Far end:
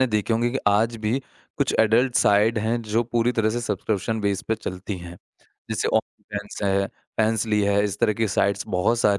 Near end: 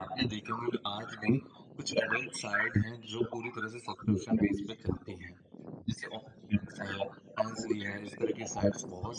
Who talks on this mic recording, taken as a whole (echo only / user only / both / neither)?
echo only